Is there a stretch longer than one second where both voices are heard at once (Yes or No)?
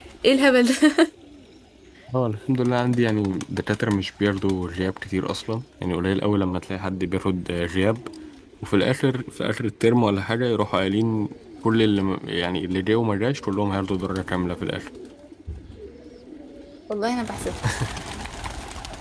No